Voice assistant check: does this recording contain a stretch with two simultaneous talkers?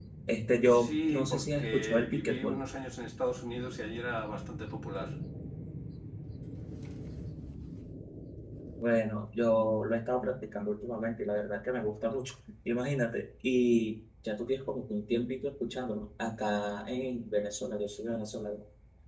Yes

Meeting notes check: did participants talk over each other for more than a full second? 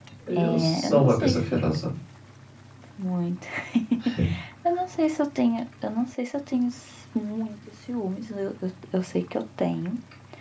Yes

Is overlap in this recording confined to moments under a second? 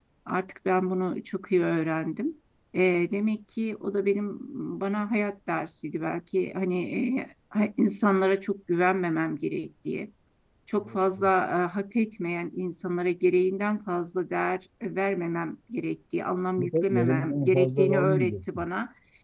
No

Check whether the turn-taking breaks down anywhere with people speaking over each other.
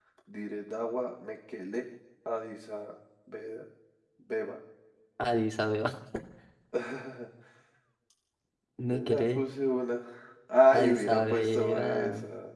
Yes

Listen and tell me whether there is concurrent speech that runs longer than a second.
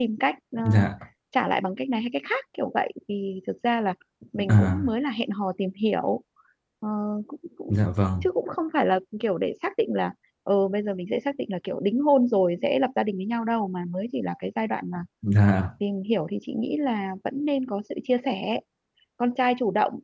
No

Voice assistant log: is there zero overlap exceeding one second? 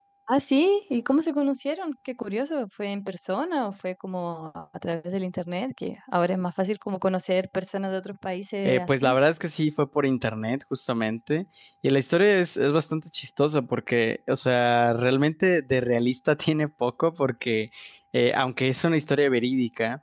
Yes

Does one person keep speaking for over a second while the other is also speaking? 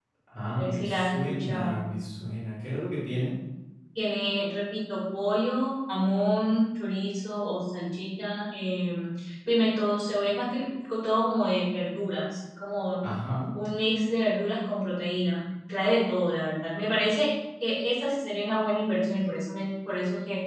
Yes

